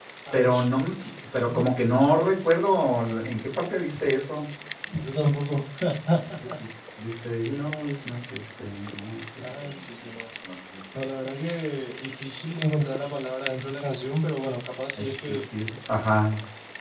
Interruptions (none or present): present